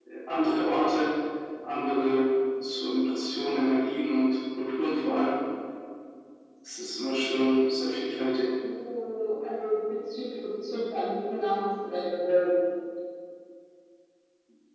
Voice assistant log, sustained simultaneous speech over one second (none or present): none